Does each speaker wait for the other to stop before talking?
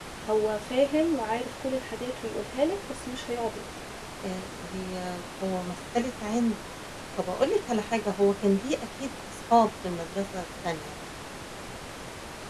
Yes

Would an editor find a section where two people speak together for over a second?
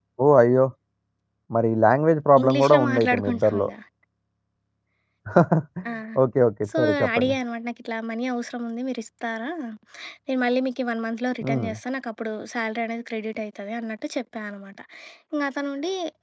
Yes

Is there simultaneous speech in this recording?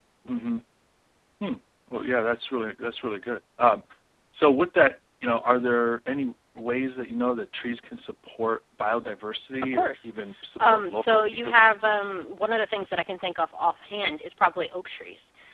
Yes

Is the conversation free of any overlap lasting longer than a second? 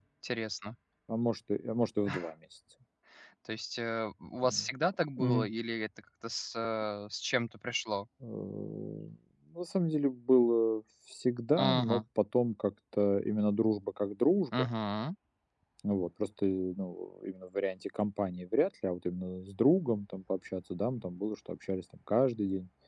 Yes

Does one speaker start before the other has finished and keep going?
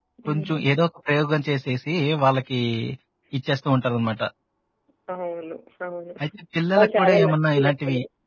Yes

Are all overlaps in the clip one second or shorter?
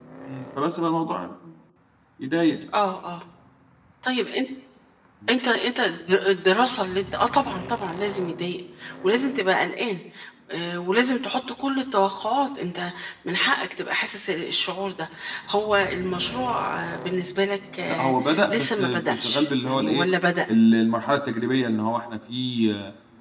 No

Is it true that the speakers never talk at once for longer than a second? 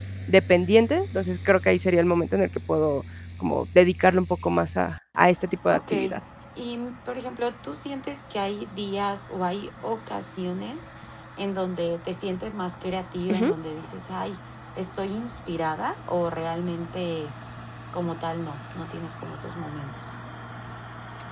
Yes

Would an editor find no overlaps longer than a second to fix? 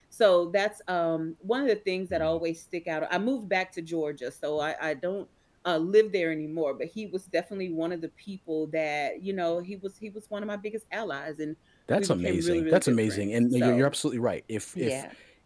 No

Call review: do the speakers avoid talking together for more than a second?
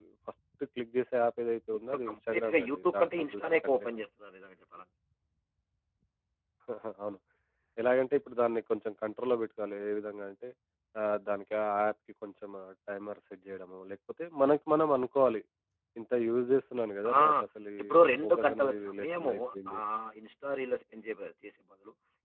No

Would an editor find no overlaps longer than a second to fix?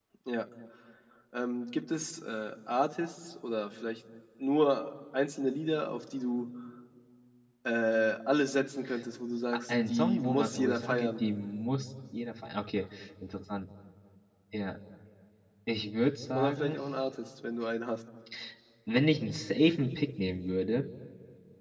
No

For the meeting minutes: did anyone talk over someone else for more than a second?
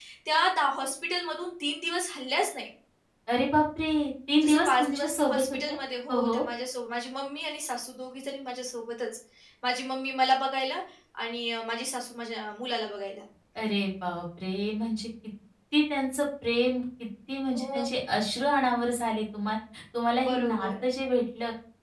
Yes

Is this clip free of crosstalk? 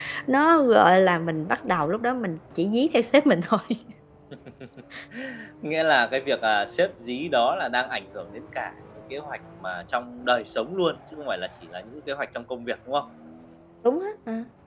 Yes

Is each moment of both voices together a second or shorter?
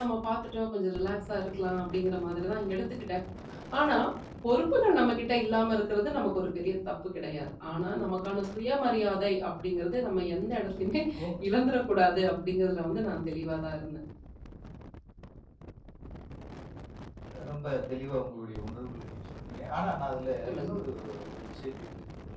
Yes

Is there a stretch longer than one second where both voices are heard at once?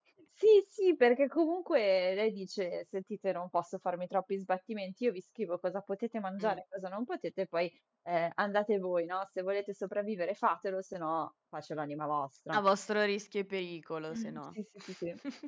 No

